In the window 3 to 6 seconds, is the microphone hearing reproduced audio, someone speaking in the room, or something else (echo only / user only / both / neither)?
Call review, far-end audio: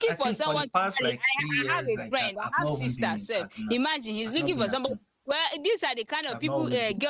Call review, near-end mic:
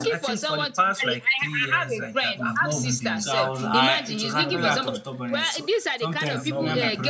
both